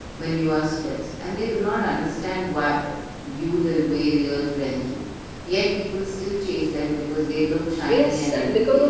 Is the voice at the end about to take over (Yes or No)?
Yes